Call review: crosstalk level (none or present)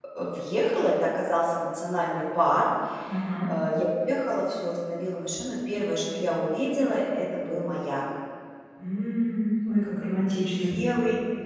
none